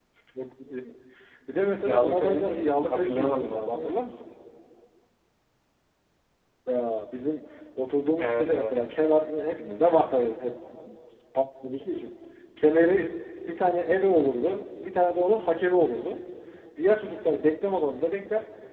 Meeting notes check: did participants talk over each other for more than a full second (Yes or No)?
Yes